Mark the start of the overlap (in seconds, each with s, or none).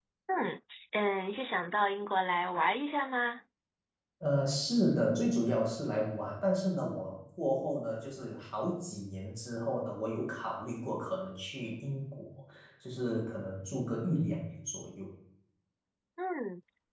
none